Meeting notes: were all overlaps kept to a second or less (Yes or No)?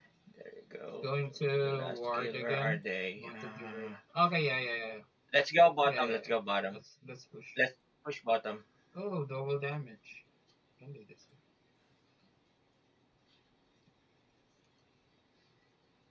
No